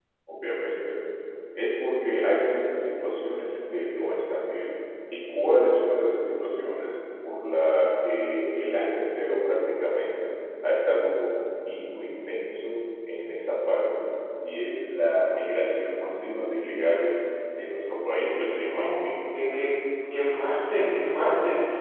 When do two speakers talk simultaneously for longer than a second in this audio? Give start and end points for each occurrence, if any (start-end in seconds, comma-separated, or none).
none